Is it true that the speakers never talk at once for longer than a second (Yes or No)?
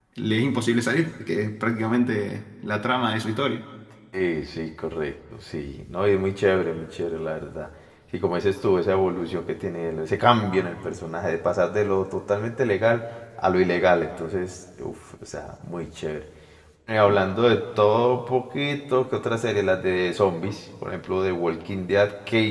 Yes